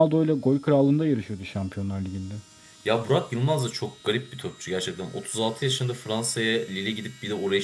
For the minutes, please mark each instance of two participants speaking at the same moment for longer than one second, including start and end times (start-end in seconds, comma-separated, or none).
none